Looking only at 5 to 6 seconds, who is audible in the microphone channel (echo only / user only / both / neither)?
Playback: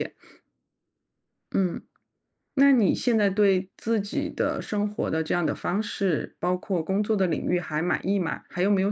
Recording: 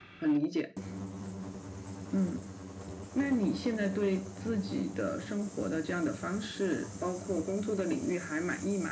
echo only